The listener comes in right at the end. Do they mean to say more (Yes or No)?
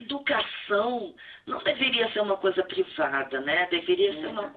No